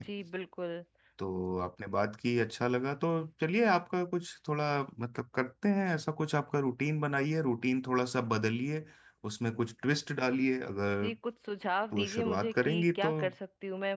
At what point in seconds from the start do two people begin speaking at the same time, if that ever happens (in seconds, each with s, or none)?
11.9 s